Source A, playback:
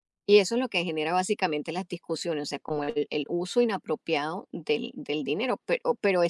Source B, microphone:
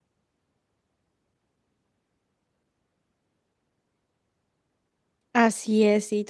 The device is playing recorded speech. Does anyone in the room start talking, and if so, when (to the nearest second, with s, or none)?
5 s